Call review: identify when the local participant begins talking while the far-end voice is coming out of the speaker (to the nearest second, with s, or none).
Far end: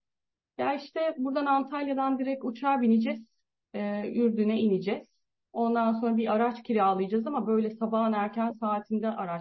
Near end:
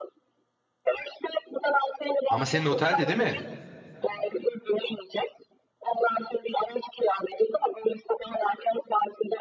2 s